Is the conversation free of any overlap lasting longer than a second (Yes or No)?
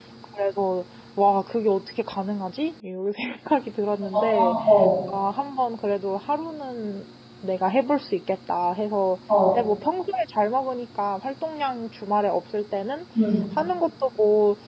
Yes